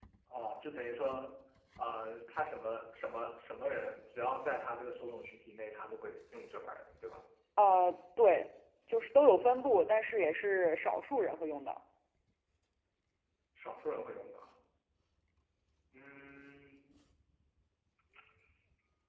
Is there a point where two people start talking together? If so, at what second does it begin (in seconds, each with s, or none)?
none